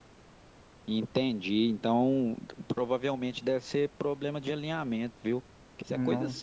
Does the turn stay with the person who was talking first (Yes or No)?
Yes